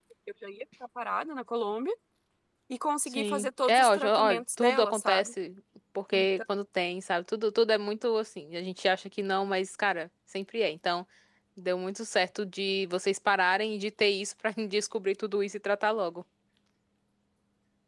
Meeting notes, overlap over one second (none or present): present